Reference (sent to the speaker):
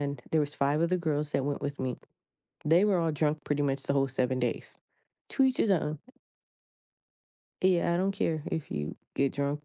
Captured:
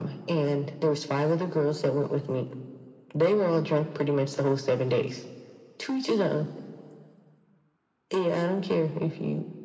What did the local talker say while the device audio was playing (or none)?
none